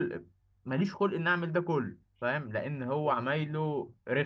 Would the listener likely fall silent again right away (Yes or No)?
Yes